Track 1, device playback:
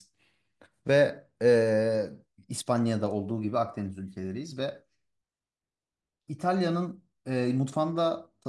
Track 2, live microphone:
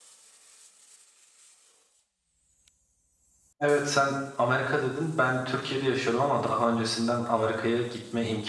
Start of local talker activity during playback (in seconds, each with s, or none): 3.6 s